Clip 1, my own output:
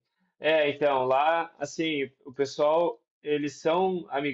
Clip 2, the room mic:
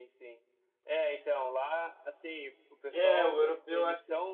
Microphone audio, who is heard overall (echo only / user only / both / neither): both